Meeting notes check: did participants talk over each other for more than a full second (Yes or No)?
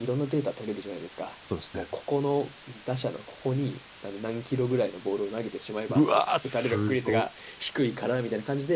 Yes